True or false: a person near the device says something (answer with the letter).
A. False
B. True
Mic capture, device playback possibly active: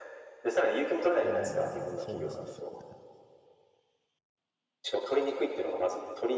B